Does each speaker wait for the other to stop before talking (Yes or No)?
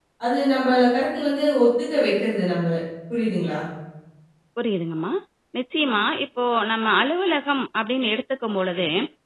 Yes